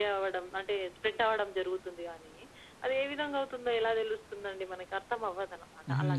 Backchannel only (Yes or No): No